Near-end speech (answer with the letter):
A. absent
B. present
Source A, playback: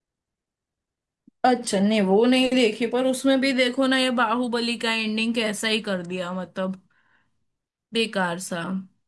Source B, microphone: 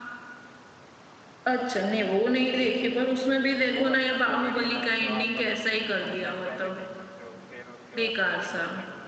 B